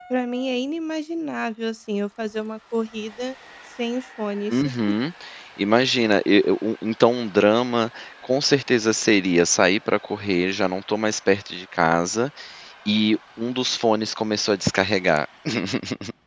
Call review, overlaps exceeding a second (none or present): none